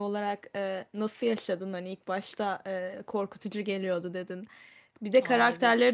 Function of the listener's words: listening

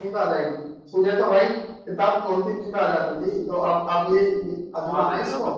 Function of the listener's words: taking over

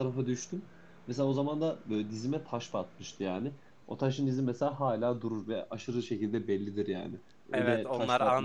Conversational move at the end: taking over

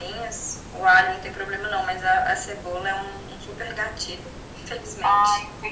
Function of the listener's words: taking over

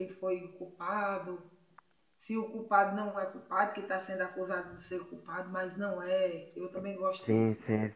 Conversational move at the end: taking over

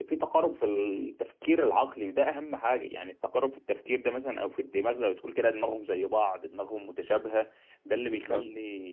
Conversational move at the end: listening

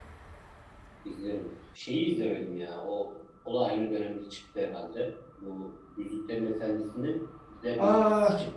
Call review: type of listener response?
taking over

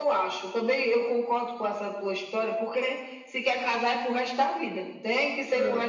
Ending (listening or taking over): taking over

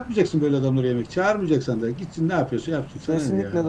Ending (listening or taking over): taking over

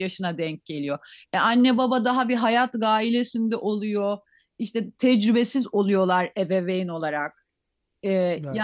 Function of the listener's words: listening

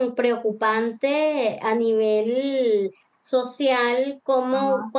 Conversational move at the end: listening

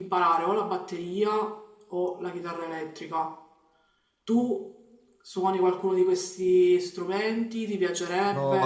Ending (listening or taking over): taking over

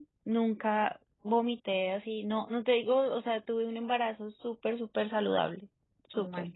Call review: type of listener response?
listening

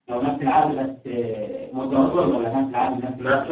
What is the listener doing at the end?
taking over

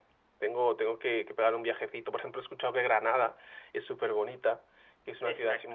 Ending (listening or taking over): listening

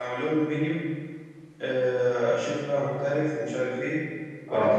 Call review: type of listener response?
listening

